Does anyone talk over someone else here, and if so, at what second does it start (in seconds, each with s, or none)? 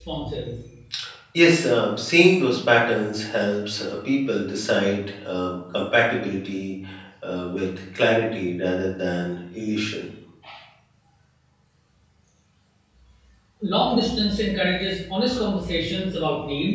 none